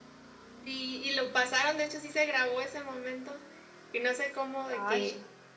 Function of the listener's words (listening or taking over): listening